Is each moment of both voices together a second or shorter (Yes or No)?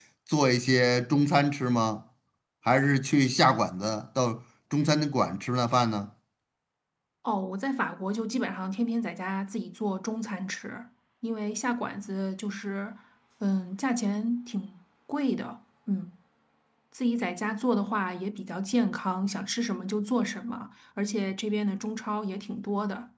Yes